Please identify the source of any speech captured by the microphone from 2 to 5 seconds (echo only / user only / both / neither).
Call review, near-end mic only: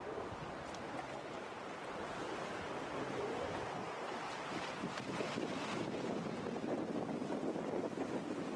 neither